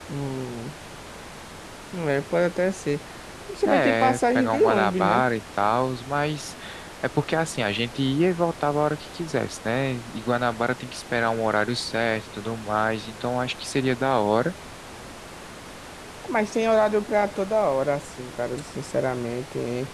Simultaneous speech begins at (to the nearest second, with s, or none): 4 s